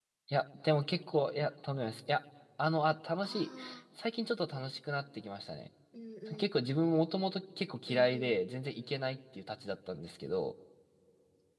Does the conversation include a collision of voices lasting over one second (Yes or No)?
No